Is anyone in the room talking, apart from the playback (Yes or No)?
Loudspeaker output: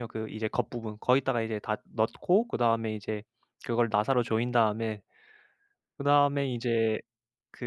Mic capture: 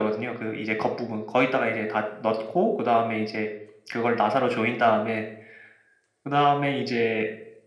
No